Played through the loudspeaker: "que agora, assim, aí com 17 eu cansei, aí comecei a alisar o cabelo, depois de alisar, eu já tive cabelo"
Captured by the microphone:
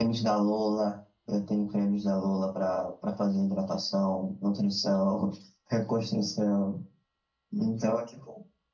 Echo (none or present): none